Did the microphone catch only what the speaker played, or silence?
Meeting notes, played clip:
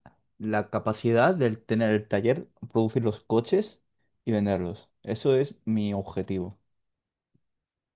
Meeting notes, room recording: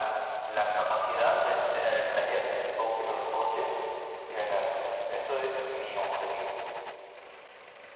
Yes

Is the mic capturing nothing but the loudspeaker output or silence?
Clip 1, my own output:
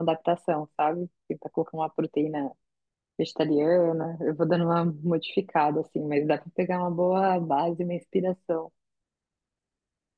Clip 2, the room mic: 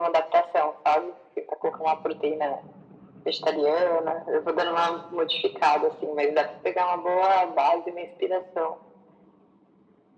Yes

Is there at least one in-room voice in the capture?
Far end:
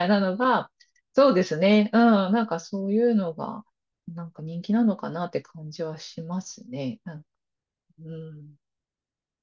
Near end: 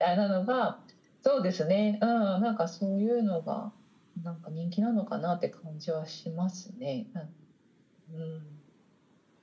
No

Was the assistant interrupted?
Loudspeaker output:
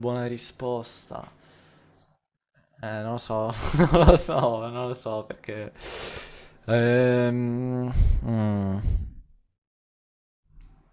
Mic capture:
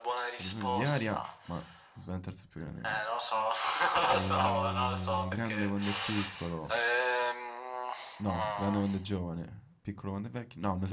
Yes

